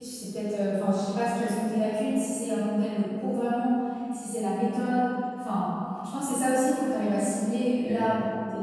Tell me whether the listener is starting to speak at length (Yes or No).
No